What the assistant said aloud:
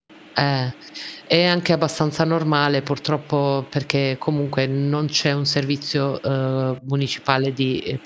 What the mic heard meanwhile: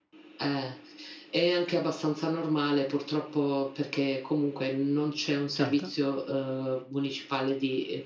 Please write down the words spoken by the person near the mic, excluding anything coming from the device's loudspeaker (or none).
Certo.